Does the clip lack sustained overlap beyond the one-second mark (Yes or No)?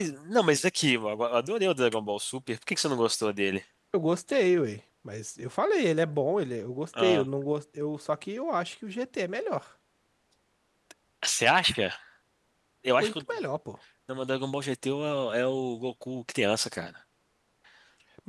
Yes